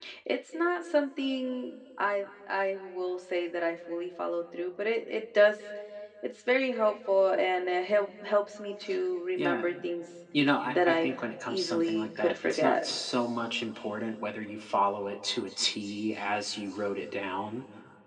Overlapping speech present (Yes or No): Yes